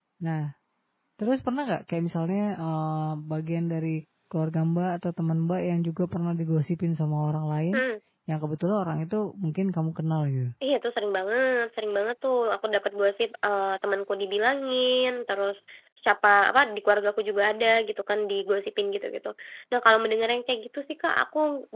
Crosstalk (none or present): none